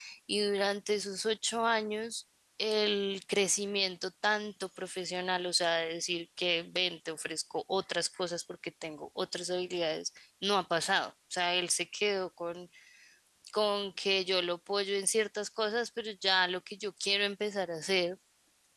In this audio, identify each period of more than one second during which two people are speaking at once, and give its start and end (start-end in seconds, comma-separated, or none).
none